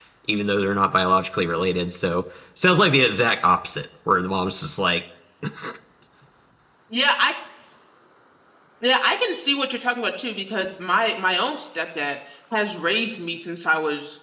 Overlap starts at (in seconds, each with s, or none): none